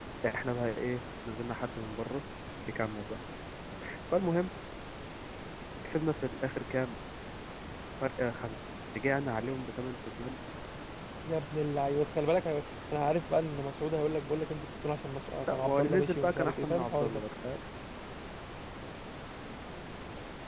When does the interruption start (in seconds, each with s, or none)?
15.5 s